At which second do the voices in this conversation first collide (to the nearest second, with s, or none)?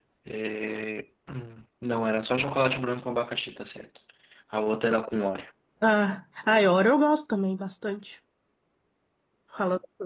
none